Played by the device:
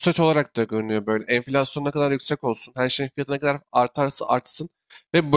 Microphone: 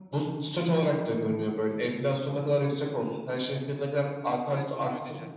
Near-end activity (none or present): present